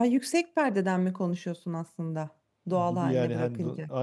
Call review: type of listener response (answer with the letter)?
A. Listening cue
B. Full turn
B